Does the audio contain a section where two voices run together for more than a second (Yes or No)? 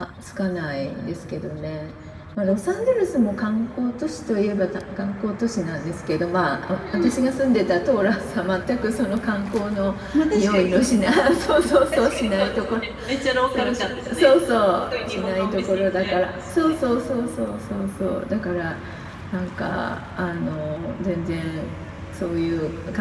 Yes